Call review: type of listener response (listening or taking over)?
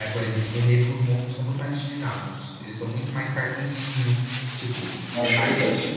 listening